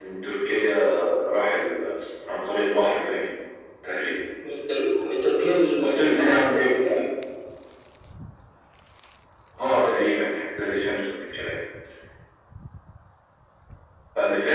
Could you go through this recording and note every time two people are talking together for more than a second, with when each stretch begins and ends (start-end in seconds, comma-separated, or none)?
5.8-7.0